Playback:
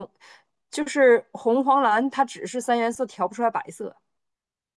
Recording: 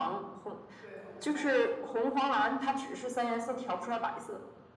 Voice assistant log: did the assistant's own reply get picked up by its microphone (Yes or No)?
Yes